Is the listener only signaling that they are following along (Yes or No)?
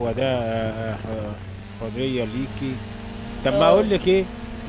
Yes